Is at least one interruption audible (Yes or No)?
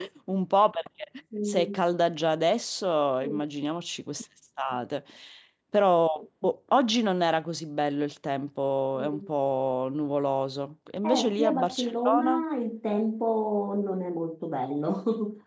Yes